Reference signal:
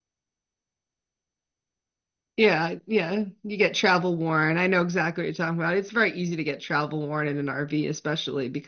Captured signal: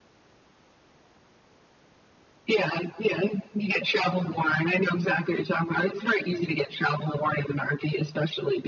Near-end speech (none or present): none